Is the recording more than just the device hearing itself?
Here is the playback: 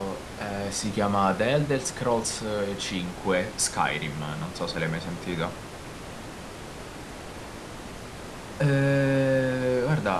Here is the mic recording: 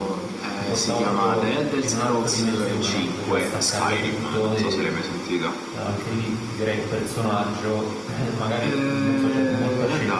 Yes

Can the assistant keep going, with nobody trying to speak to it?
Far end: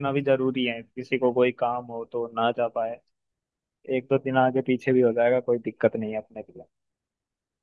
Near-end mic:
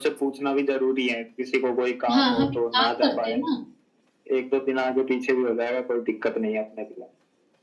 No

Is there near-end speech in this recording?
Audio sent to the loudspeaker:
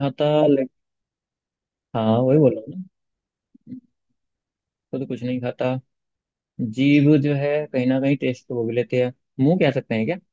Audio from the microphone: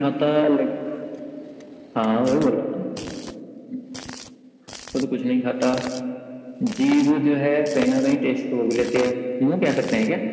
No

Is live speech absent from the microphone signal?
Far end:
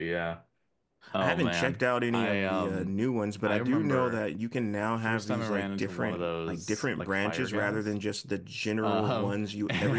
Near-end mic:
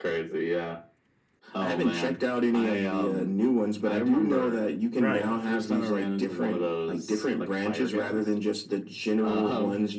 No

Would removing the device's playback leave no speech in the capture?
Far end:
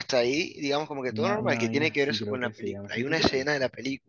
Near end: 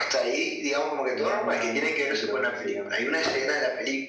Yes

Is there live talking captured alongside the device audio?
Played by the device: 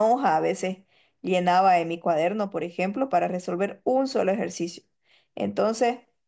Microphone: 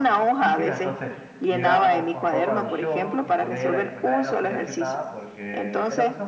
Yes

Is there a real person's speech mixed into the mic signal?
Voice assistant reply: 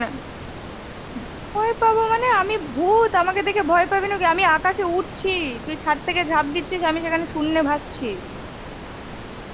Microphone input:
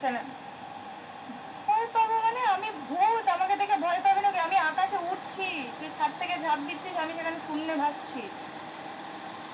No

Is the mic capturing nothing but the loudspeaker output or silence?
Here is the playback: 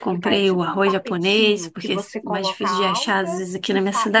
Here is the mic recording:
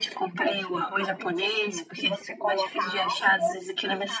Yes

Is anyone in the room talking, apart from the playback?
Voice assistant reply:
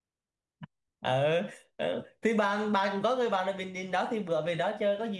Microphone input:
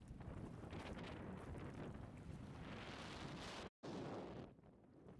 No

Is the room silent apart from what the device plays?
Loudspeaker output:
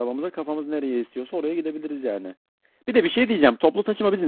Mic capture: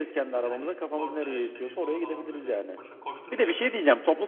No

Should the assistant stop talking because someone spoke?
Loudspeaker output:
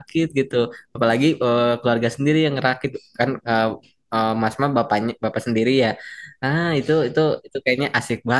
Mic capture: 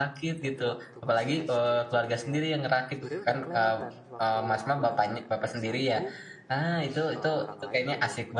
Yes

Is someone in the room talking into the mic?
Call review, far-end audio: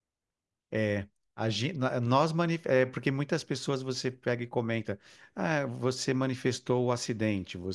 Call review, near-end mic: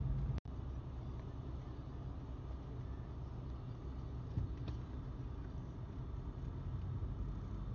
No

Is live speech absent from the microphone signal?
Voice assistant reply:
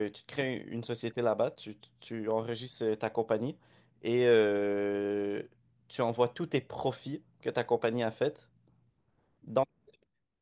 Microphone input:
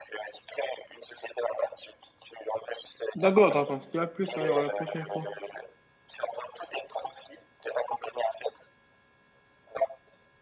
No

